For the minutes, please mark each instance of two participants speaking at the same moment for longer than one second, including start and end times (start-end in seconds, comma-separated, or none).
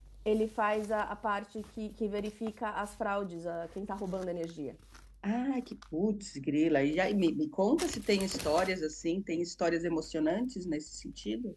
none